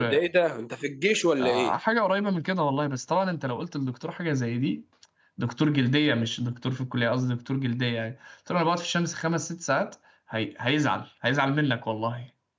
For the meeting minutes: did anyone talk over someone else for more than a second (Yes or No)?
No